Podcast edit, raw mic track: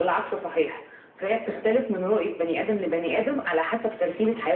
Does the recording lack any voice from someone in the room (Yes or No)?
Yes